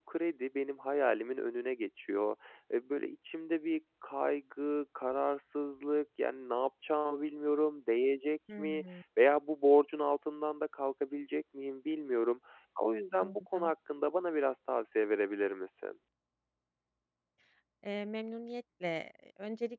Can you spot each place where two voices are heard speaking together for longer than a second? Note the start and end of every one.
none

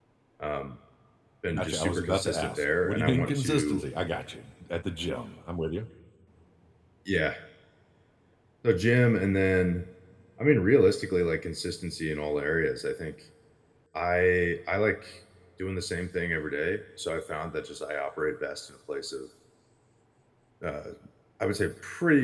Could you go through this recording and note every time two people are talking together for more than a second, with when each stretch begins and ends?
1.5-3.8

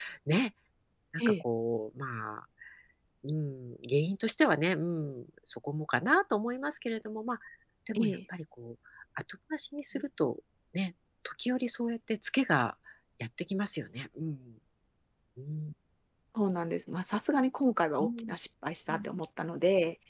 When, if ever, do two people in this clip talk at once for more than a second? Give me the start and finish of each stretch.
none

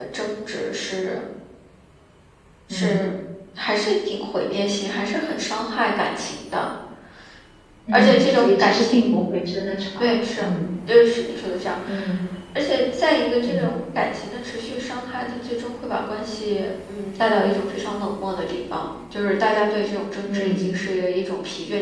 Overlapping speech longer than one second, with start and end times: 7.9-9.2

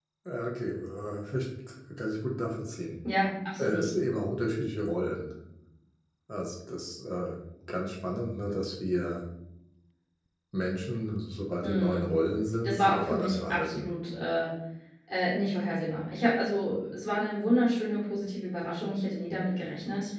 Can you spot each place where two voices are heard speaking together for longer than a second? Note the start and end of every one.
12.6-13.9

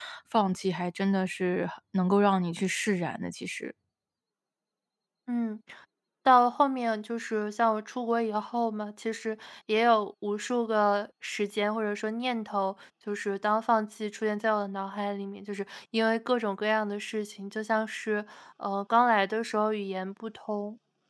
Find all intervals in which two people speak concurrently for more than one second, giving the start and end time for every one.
none

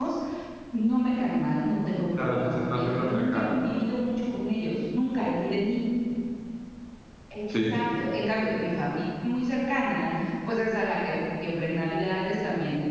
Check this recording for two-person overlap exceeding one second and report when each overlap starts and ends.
2.2-3.7

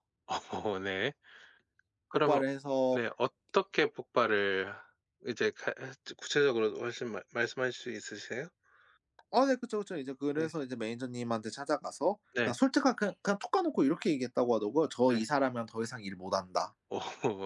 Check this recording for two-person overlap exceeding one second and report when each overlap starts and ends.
none

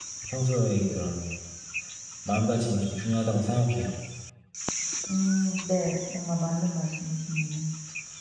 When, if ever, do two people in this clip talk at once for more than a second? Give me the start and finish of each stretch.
none

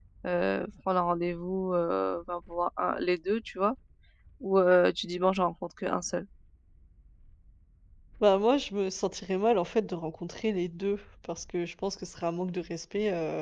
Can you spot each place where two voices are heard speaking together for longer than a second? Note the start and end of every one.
none

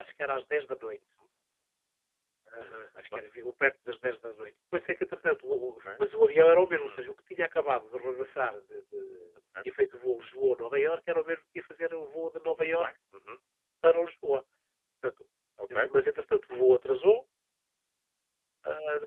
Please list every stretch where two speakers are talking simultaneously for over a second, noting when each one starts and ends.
none

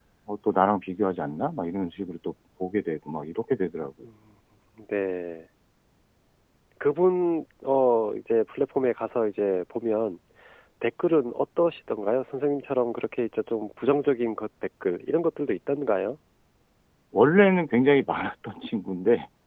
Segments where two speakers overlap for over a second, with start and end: none

